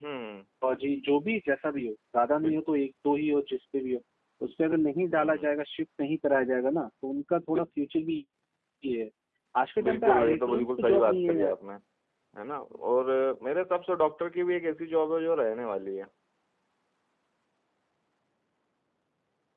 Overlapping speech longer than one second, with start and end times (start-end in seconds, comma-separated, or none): 9.8-11.5